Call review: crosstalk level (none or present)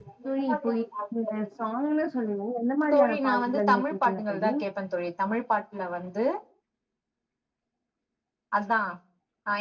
present